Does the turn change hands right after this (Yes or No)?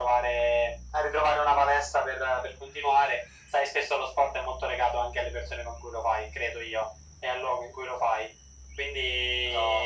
Yes